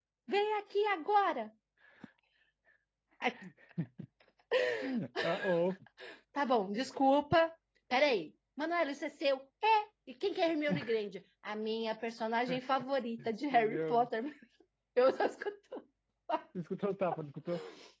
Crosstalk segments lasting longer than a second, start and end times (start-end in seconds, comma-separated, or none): none